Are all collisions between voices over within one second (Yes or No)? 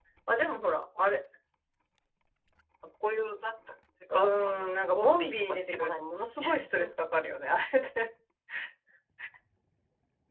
No